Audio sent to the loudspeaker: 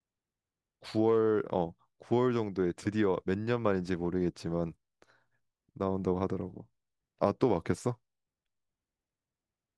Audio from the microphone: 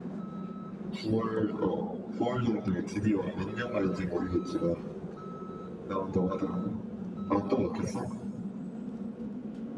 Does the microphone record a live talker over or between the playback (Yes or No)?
No